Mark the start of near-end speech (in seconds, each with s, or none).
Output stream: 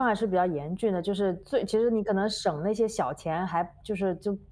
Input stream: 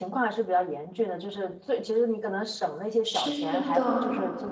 3.0 s